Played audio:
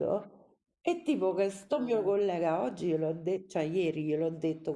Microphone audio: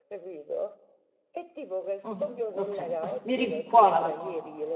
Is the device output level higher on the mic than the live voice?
No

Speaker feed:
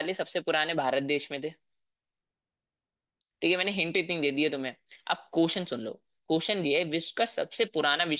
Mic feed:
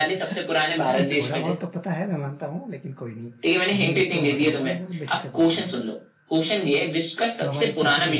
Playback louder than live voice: Yes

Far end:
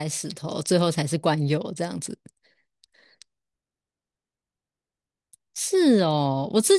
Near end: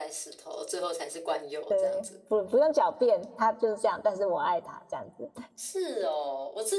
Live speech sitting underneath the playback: No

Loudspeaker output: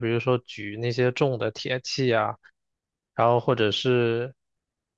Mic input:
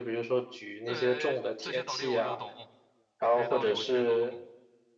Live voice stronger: No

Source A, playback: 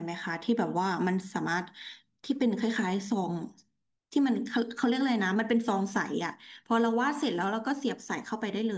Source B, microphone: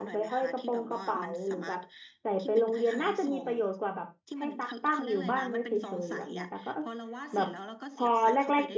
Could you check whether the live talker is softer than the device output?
No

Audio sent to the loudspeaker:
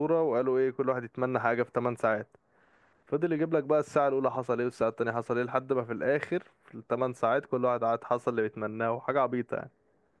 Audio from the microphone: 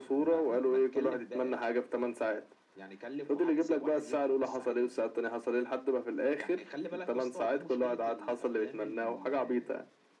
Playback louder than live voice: Yes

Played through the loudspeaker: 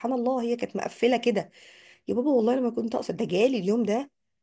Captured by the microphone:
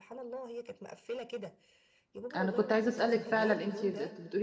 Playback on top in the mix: No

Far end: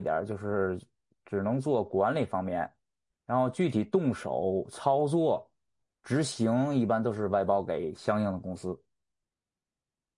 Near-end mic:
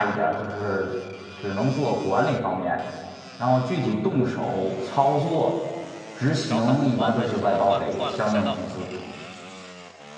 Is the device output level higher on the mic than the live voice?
Yes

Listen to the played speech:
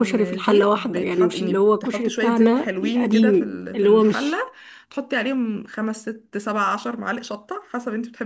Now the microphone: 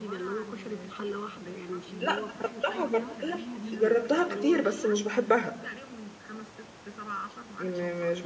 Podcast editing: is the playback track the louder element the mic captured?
No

